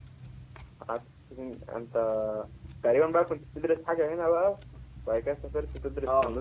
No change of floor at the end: No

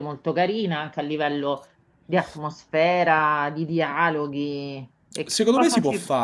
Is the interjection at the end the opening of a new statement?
Yes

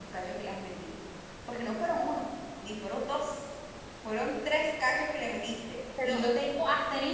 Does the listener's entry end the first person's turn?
No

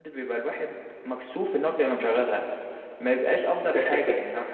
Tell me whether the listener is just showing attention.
Yes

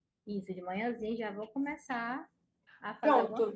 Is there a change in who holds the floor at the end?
Yes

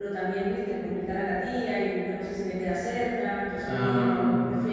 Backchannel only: Yes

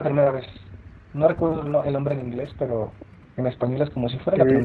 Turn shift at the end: Yes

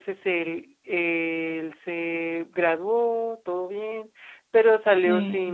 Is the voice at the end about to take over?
No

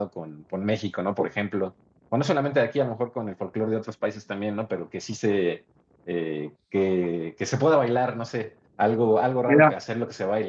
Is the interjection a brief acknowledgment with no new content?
Yes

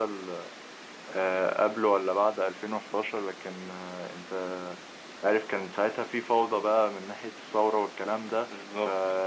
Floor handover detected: No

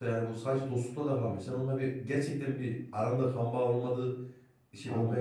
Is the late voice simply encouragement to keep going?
Yes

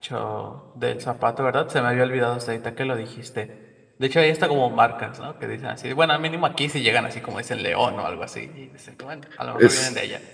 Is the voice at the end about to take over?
Yes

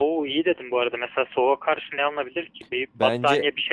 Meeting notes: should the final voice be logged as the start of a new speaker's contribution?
Yes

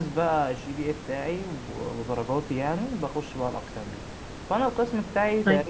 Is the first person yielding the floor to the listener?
No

